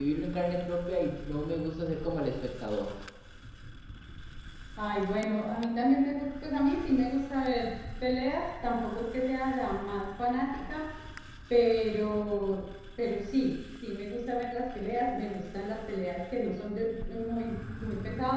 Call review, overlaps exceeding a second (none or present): none